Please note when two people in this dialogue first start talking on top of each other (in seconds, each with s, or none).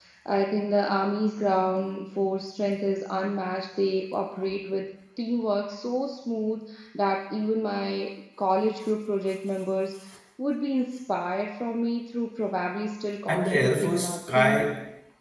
13.3 s